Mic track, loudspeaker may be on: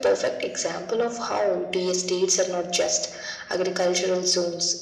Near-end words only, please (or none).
none